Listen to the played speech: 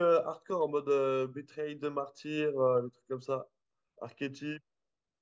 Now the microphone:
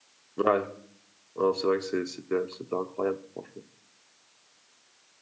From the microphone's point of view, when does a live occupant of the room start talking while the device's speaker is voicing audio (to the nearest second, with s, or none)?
0 s